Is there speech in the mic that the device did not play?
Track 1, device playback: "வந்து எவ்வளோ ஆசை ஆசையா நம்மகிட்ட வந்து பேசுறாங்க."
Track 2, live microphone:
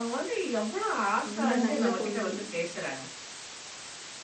Yes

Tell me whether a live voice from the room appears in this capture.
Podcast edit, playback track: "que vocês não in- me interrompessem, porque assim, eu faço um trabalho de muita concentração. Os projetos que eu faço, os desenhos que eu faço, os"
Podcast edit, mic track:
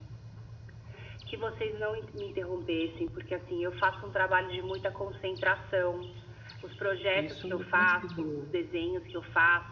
Yes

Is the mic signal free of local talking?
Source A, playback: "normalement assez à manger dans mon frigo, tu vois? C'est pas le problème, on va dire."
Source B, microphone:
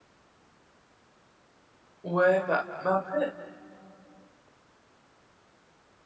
No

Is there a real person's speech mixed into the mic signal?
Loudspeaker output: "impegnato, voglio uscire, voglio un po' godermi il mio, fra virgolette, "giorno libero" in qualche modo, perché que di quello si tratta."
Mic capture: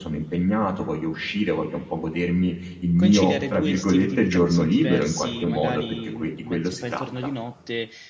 Yes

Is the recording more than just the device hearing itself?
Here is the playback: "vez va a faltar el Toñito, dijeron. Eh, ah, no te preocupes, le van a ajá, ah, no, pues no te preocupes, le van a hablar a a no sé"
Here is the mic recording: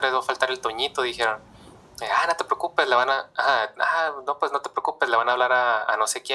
No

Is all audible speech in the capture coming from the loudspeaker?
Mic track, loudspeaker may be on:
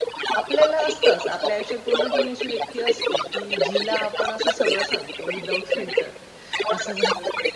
No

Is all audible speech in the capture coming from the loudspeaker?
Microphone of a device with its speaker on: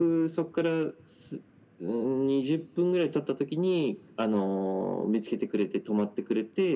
Yes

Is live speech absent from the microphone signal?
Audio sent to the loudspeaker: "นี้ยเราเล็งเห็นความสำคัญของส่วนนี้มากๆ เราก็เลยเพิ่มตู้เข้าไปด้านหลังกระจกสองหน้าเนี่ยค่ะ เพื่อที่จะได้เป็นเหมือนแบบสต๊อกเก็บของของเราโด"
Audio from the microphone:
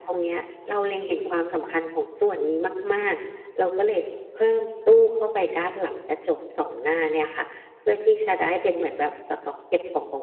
Yes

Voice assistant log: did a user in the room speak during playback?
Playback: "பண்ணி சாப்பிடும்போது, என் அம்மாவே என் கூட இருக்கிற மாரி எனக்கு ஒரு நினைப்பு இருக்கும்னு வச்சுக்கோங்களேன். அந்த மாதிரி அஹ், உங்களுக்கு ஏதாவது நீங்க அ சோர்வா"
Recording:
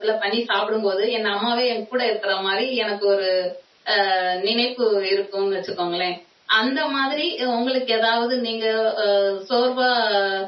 No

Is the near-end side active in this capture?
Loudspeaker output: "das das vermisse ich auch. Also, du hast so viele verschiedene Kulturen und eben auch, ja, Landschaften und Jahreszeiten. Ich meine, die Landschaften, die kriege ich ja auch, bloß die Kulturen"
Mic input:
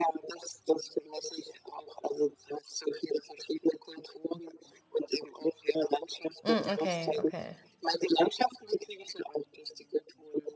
Yes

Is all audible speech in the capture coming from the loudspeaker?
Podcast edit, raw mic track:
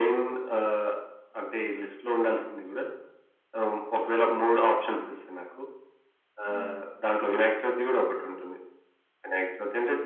No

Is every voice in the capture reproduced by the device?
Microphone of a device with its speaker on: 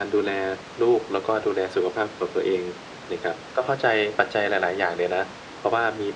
Yes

